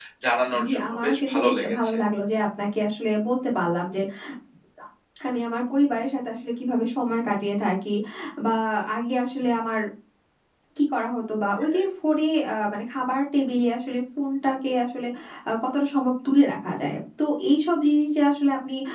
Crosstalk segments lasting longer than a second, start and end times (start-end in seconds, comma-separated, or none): 0.6-2.0